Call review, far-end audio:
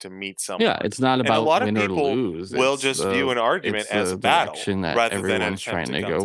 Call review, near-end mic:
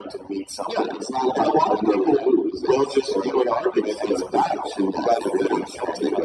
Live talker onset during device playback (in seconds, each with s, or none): none